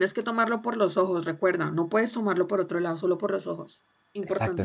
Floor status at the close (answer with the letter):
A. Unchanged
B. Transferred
B